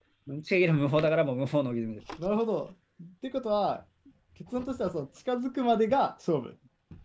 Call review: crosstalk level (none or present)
none